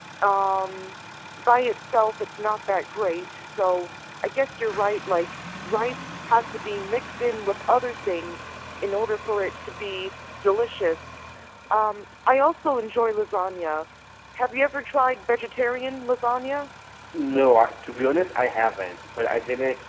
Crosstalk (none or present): none